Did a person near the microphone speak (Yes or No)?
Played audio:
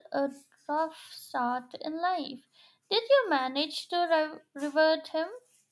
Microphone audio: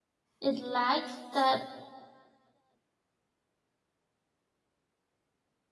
Yes